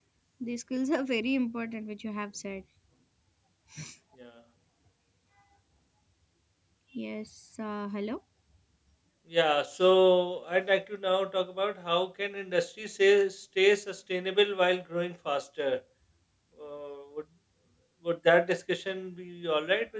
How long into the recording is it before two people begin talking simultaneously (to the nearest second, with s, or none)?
none